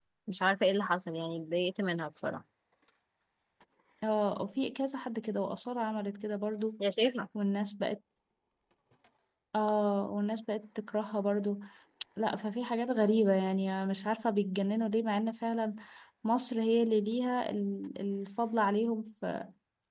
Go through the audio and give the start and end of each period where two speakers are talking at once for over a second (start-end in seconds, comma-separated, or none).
none